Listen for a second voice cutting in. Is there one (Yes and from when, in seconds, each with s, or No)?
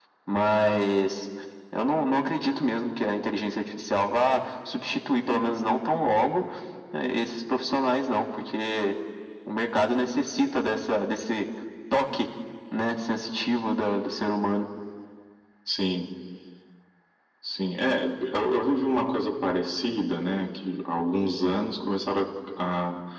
No